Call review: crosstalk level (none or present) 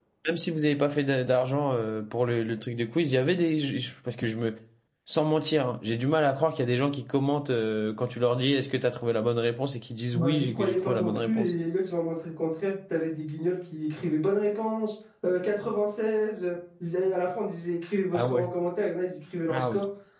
present